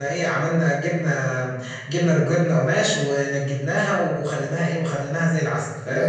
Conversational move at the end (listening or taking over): listening